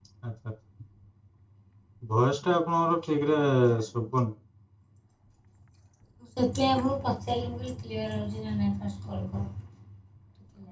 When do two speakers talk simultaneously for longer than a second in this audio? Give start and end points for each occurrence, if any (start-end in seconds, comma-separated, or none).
none